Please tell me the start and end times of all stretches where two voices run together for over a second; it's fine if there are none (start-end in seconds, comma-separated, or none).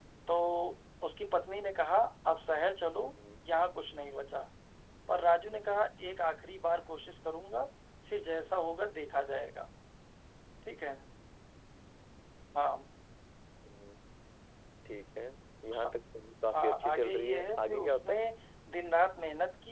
16.5-18.1